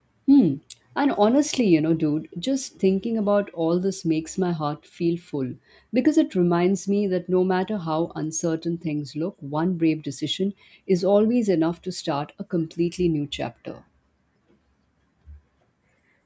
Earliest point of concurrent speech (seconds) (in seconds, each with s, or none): none